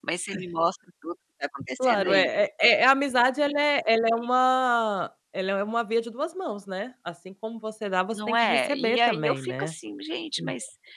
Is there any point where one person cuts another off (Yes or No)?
Yes